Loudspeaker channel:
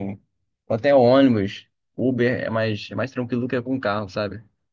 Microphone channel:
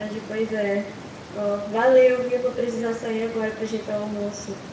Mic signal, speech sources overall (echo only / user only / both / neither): user only